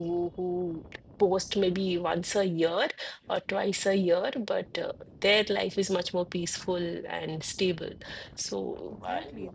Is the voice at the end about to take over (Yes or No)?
Yes